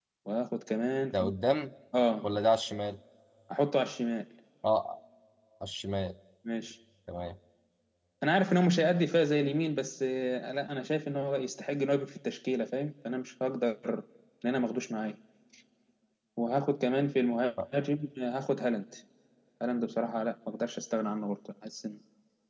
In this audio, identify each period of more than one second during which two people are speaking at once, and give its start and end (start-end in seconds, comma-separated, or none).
none